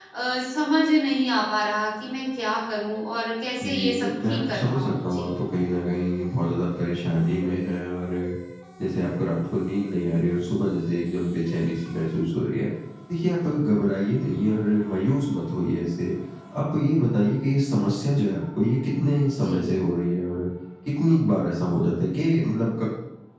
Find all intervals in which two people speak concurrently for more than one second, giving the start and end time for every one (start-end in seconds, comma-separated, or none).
3.6-5.3